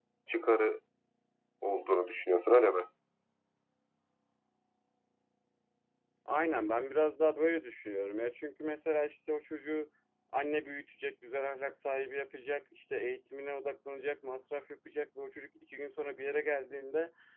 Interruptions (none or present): none